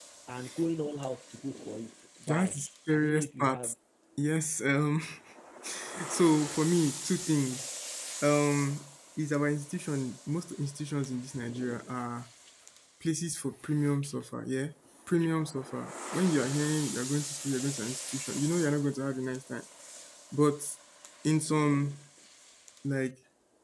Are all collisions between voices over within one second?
No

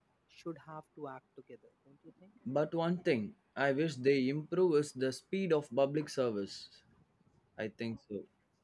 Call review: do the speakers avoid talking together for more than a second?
Yes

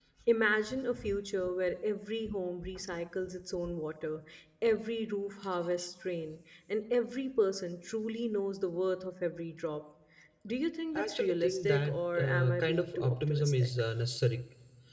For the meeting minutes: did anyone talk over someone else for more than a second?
Yes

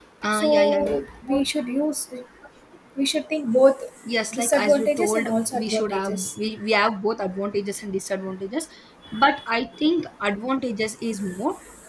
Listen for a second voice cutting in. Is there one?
Yes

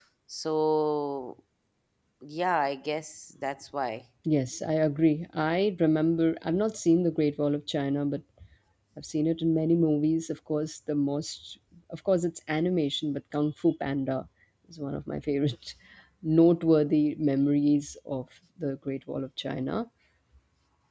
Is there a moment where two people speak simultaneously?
No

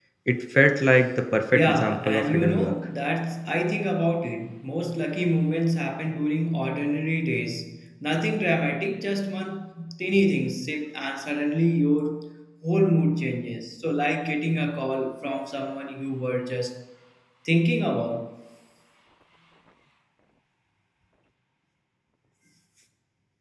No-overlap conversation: No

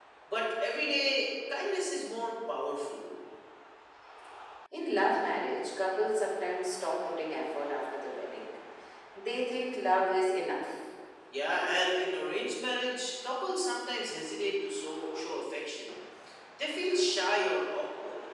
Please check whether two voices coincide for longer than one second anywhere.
No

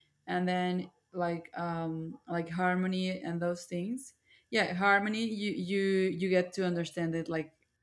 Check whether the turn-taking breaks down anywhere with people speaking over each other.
No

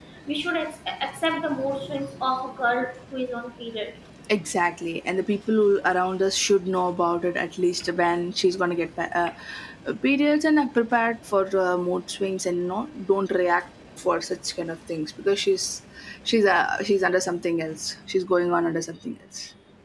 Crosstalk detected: No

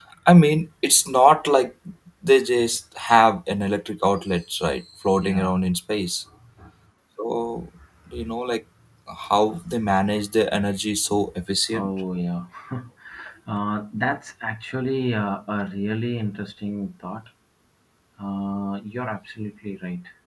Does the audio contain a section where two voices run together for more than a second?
No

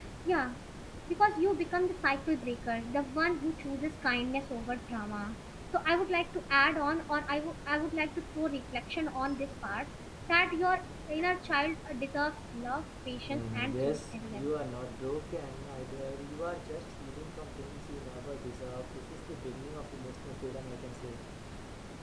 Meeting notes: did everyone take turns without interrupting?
No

